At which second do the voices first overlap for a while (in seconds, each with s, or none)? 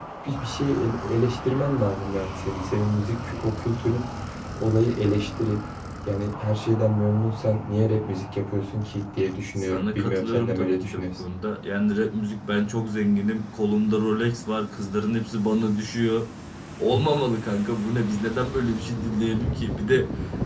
9.6 s